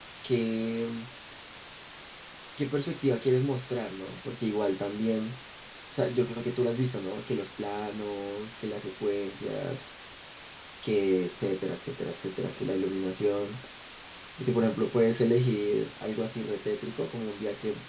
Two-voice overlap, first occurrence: none

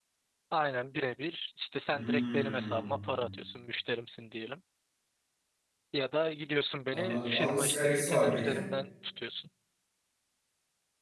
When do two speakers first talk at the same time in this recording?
1.9 s

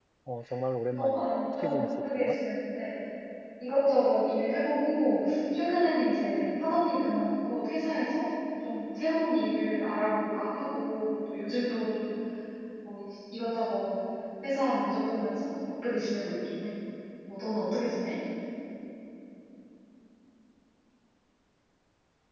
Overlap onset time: 0.8 s

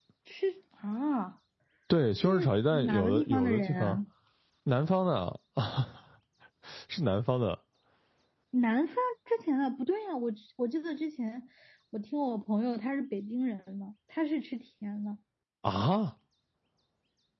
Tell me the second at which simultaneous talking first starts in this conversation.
2.2 s

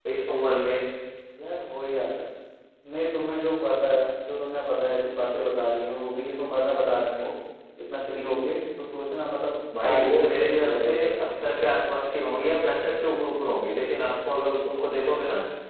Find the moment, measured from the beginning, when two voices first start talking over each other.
9.7 s

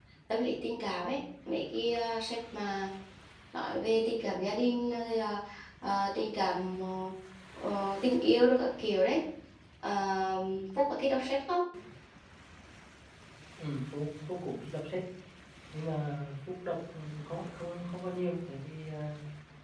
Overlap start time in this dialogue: none

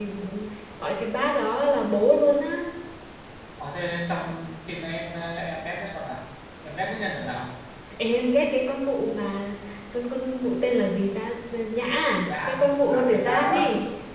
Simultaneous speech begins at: 12.3 s

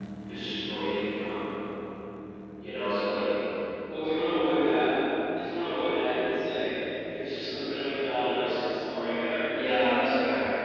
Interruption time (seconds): none

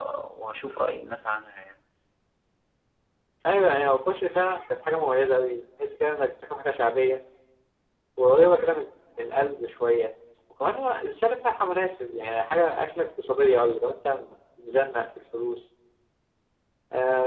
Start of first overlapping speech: none

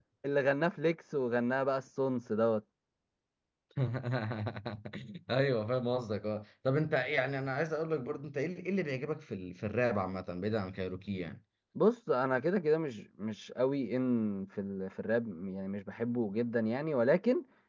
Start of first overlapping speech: none

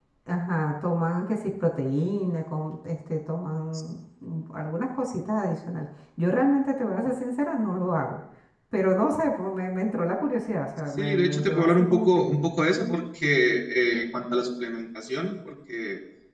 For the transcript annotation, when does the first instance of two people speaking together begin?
11.0 s

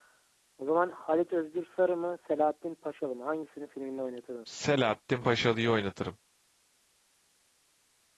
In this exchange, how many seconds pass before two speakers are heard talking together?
none

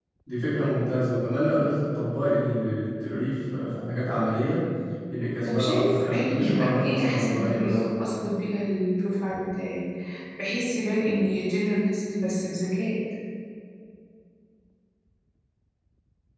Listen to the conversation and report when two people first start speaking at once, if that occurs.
5.4 s

